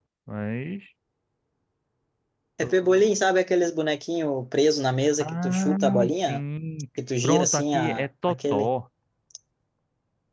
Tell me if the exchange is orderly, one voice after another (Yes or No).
No